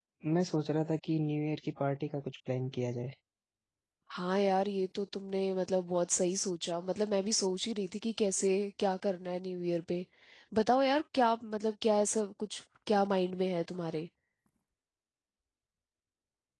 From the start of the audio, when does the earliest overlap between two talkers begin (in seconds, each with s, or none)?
none